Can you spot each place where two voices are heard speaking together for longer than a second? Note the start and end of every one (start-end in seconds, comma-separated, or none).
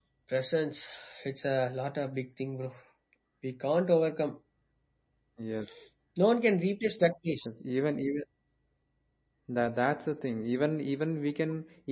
none